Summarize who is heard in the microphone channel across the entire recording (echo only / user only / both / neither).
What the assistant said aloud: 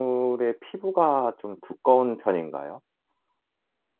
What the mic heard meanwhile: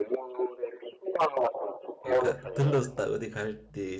both